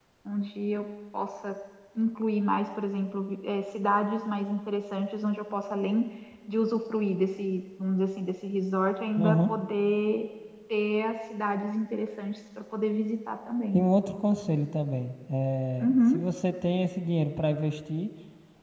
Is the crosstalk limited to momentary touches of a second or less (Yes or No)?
Yes